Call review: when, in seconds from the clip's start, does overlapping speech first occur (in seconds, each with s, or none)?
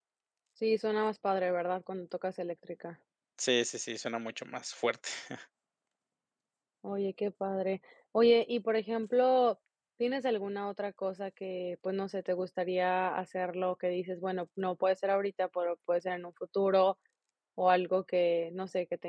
none